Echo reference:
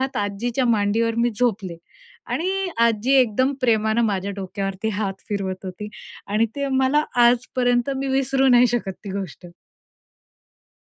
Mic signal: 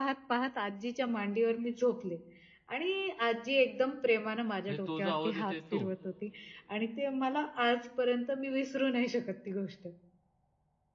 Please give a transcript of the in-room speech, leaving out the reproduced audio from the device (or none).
म्हणजे तो जो आवाज येतोय, तो.